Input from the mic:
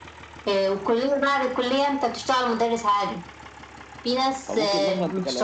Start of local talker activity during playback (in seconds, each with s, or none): 4.4 s